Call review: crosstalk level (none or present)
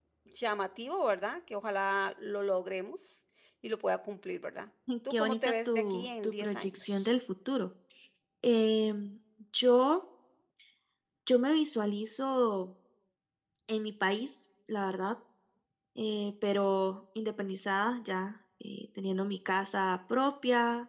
present